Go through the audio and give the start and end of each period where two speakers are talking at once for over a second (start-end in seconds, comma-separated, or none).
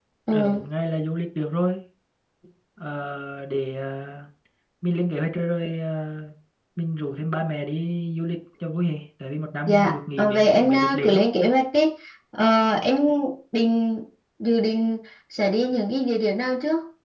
9.7-11.2